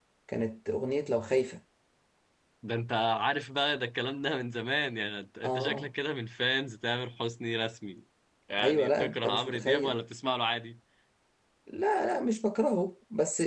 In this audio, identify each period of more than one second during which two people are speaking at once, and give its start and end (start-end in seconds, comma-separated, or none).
8.6-9.9